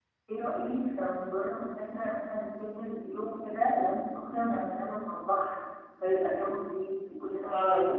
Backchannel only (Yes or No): No